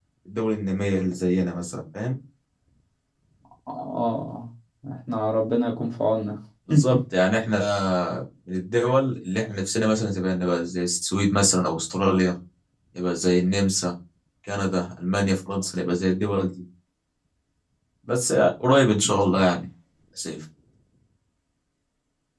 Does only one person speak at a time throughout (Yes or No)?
Yes